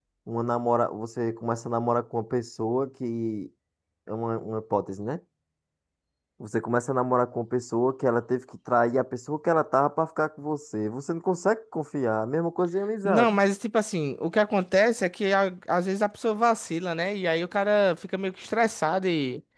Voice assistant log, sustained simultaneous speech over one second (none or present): none